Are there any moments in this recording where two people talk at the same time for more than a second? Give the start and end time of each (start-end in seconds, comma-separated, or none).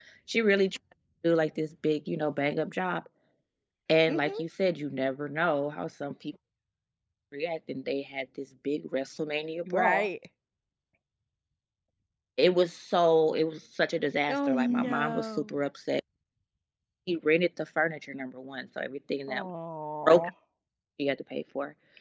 14.3-15.6